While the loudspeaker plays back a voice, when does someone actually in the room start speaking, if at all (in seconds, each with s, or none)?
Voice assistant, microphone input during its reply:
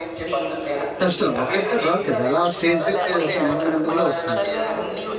1.0 s